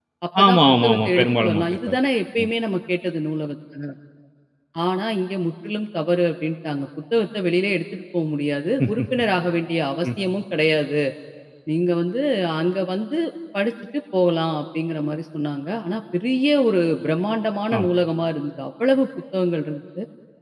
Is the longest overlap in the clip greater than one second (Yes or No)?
Yes